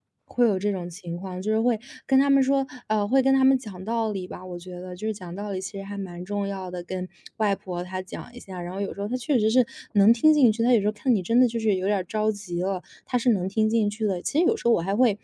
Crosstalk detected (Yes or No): No